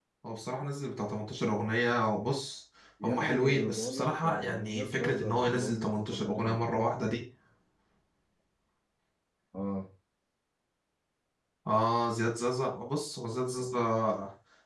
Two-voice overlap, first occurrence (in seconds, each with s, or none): 3.0 s